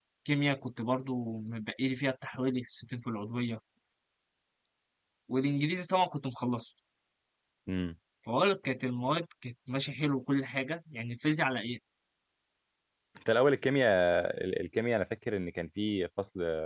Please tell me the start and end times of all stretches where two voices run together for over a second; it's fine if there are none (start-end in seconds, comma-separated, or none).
none